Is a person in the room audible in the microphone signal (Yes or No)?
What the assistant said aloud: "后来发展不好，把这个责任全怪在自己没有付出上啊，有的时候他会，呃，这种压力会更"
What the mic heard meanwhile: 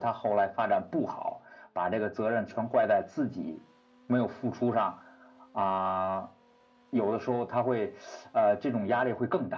No